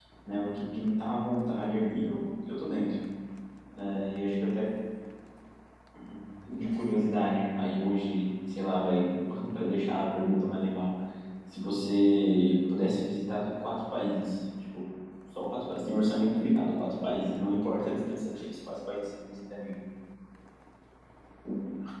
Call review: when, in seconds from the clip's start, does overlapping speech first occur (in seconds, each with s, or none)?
none